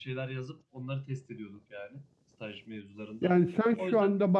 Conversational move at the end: taking over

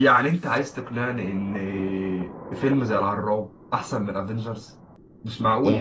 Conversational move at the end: taking over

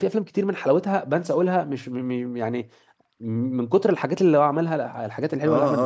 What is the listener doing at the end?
taking over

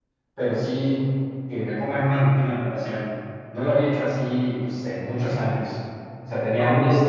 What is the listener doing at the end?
listening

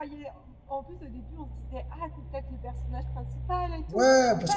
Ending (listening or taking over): taking over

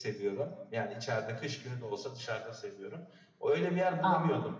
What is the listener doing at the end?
listening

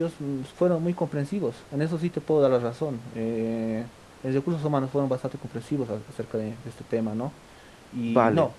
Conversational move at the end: listening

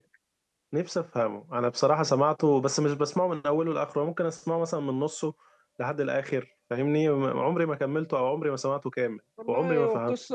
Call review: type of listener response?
taking over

